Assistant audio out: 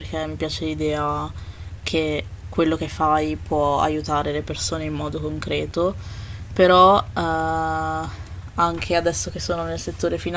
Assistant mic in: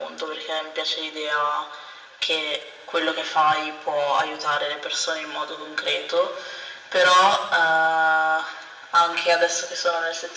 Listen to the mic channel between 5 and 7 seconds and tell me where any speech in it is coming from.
echo only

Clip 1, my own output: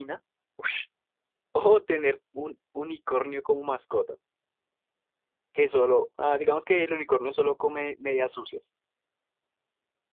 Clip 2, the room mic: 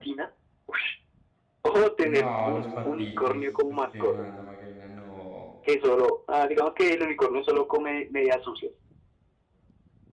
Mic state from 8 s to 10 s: echo only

